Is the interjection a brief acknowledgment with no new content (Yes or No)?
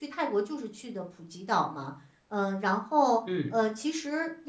Yes